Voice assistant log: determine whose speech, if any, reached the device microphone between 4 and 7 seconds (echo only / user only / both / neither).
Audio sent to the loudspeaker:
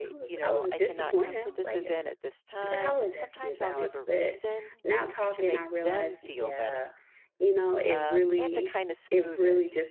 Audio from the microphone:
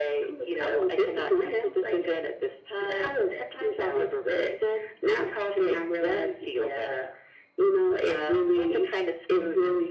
echo only